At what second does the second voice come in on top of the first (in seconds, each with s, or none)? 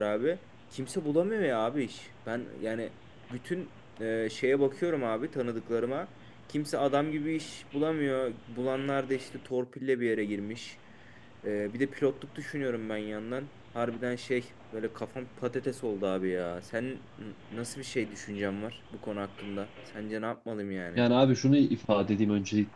none